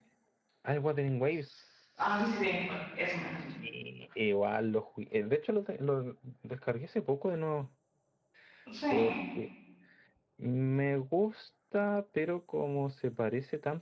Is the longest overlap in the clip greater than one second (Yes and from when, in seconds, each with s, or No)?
No